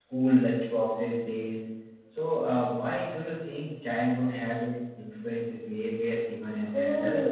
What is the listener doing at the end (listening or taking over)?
taking over